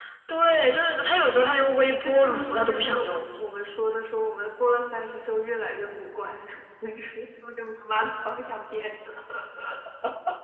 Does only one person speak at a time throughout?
No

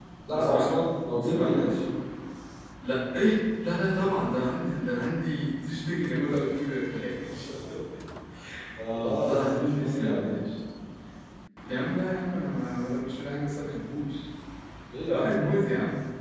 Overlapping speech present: Yes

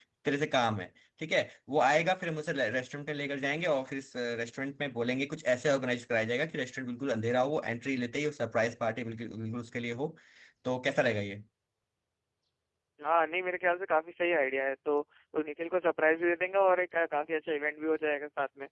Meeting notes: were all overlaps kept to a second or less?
Yes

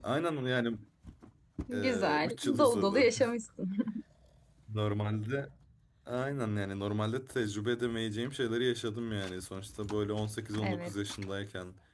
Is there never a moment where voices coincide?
No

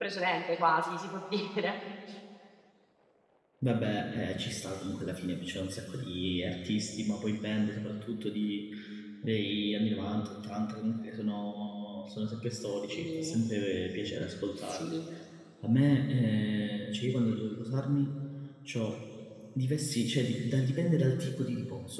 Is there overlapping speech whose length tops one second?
No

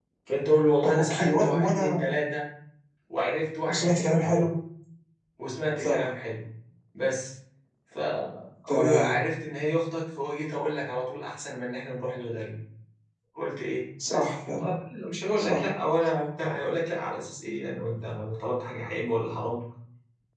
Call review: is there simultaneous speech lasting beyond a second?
Yes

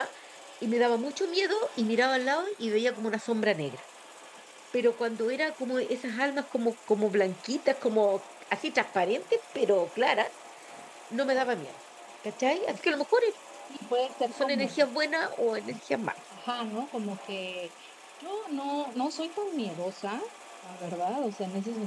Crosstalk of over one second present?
No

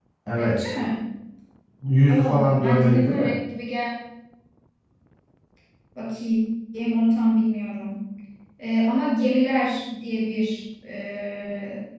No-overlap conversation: No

